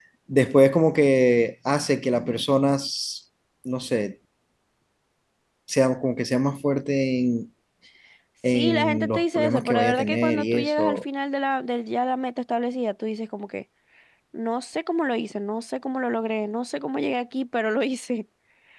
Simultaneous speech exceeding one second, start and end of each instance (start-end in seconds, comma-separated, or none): 8.5-11.0